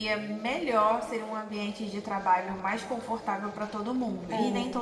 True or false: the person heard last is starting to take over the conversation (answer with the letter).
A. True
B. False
A